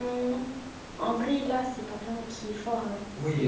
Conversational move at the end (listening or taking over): taking over